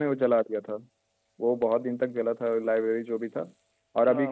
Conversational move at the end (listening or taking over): listening